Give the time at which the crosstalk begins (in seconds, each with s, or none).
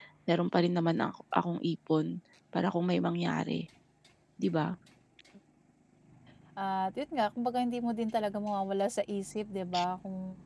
none